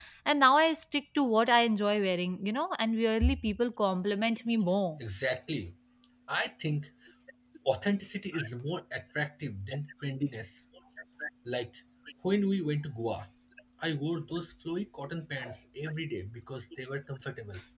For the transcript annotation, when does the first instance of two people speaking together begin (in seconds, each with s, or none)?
none